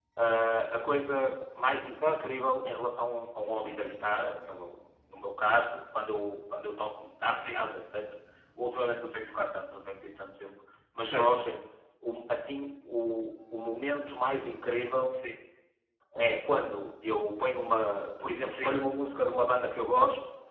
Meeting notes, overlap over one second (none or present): none